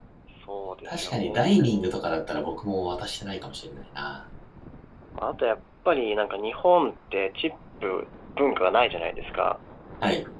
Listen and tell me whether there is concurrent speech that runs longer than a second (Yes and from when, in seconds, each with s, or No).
Yes, from 0.8 s